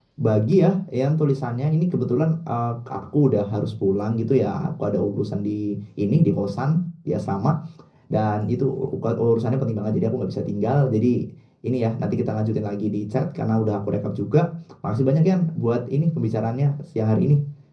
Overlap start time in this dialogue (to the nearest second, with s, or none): none